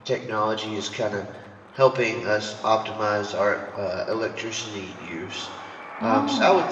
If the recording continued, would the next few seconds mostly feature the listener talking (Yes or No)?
No